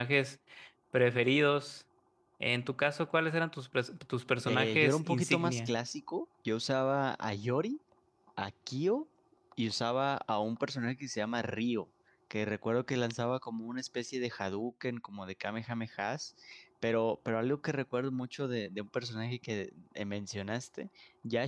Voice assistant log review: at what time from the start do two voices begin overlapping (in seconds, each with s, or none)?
4.4 s